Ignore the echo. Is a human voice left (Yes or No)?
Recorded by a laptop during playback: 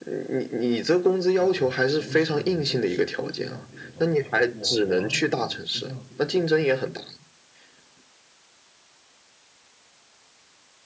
Yes